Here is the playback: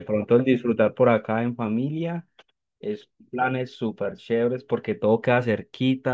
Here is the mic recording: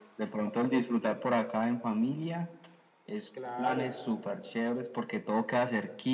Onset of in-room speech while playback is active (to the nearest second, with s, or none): 3 s